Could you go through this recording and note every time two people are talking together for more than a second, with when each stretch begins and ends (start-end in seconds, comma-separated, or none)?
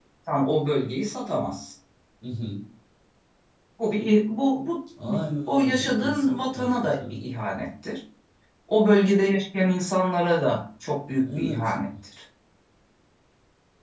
5.5-7.2